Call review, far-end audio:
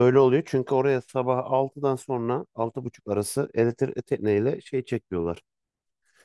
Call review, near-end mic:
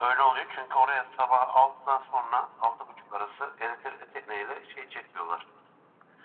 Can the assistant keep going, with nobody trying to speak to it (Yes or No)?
Yes